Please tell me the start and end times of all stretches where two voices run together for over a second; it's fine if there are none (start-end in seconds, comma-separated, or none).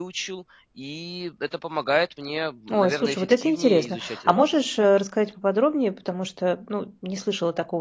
2.7-4.6